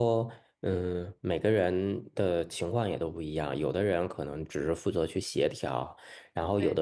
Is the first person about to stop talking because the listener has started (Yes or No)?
No